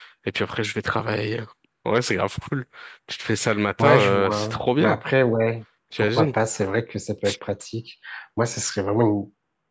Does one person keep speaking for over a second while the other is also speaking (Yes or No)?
Yes